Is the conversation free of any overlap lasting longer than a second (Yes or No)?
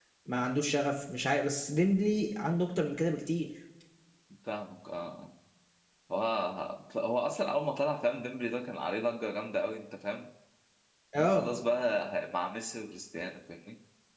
Yes